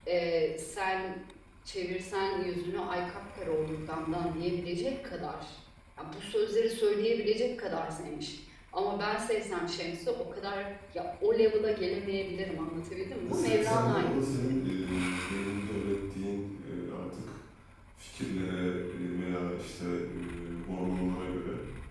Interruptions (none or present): present